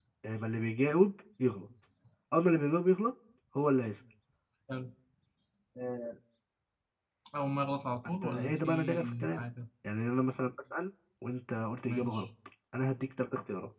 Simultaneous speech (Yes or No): Yes